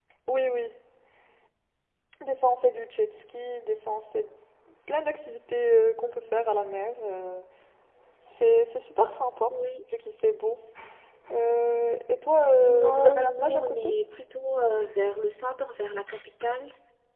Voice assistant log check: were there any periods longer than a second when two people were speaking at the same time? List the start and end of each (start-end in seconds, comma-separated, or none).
12.6-13.9